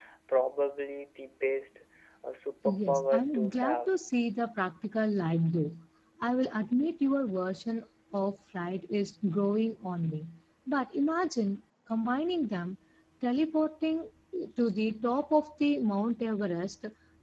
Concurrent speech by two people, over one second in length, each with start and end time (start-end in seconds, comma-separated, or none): 2.6-3.9